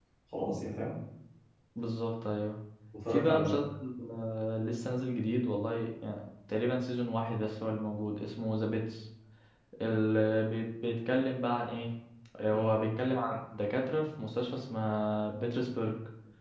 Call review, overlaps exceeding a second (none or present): none